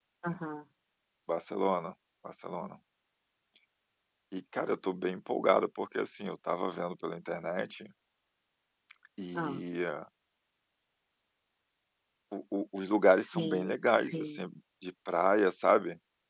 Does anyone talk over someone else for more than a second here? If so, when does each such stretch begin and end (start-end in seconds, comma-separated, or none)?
13.1-14.4